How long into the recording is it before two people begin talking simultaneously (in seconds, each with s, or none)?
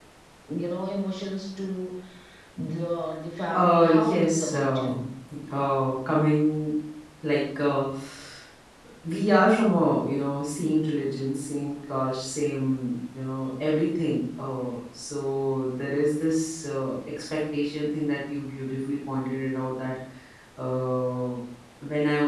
3.5 s